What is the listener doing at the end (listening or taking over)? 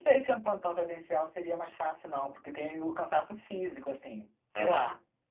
listening